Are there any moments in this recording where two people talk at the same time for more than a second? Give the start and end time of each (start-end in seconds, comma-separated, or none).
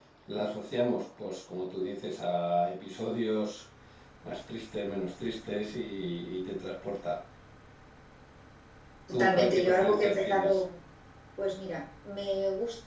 9.1-10.6